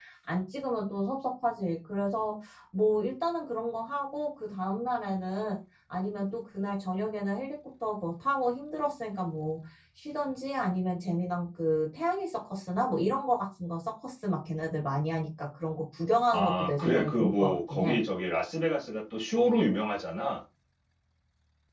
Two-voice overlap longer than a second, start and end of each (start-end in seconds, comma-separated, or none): 16.3-18.0